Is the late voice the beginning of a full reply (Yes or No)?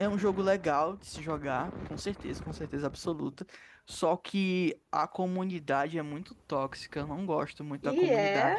Yes